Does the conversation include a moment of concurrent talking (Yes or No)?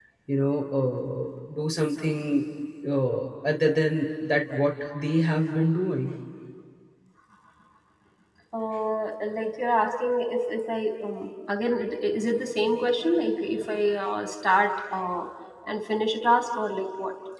No